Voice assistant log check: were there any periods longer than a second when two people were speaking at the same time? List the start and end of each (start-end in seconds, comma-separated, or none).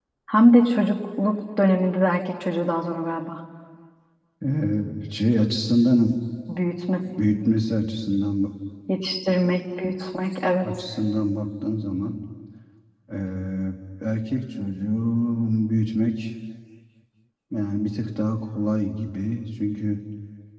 none